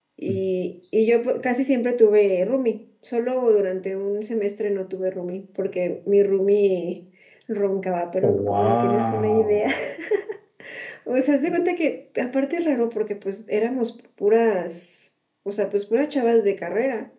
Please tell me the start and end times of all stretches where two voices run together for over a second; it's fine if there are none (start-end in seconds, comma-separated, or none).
8.2-9.7